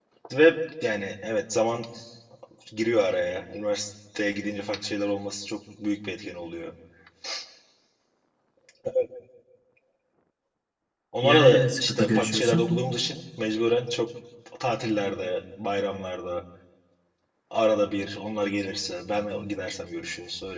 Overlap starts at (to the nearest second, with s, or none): 11 s